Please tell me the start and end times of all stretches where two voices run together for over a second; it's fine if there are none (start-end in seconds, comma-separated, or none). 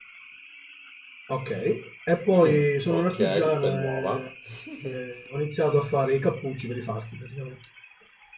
2.3-4.3